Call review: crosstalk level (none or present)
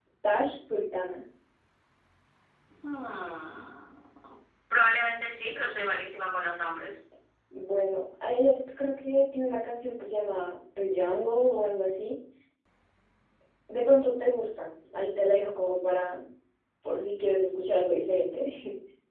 none